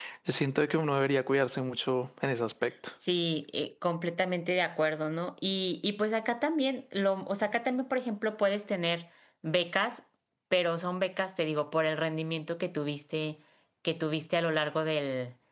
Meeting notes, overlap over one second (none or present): none